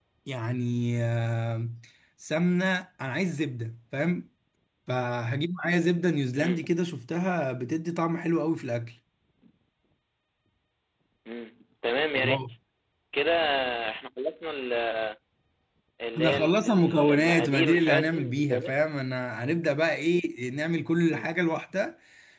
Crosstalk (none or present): present